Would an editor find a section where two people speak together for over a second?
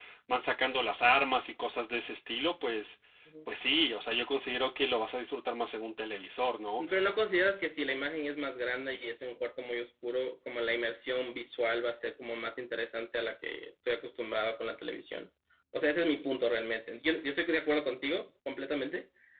No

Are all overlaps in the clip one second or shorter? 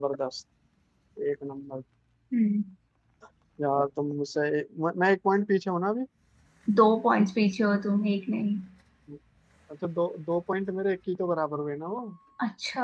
Yes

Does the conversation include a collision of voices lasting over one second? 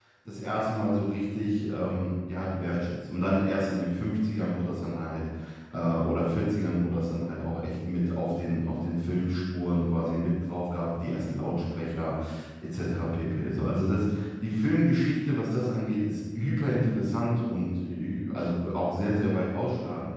No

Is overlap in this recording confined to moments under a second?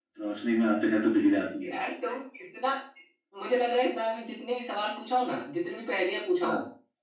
Yes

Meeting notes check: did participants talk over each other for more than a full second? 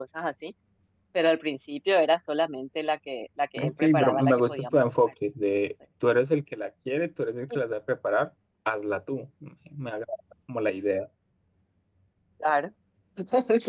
Yes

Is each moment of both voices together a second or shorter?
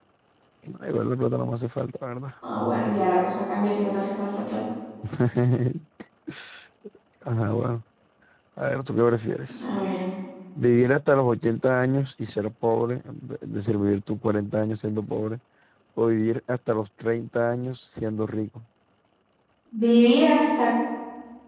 Yes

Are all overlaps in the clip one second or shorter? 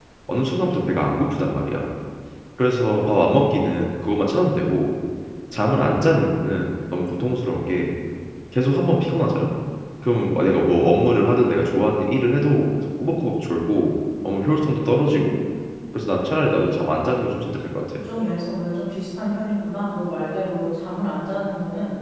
Yes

